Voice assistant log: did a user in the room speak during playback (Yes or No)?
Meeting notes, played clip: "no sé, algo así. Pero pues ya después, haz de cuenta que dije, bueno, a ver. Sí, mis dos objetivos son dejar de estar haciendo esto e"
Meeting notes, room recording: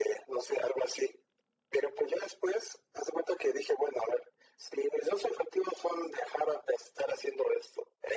No